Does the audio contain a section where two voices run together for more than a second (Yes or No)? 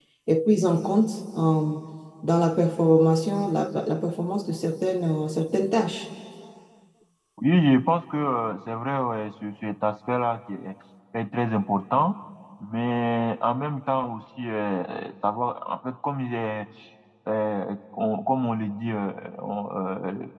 No